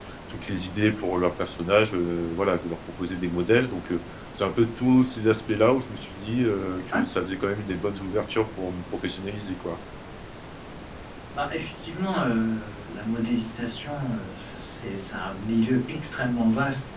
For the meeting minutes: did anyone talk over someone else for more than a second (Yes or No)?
No